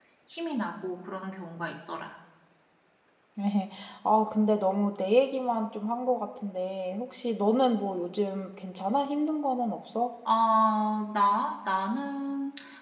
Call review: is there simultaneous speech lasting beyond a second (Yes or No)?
No